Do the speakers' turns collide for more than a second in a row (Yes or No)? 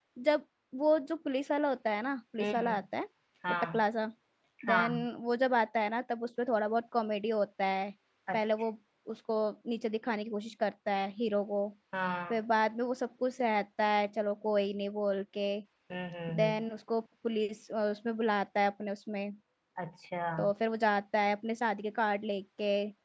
No